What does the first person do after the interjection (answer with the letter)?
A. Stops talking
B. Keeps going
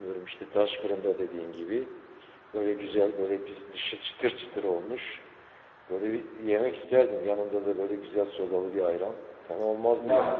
A